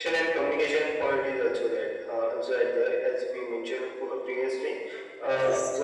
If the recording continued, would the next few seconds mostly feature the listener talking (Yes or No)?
No